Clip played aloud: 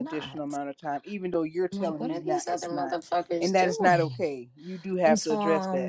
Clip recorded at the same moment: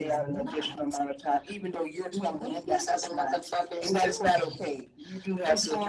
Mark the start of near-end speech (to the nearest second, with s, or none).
none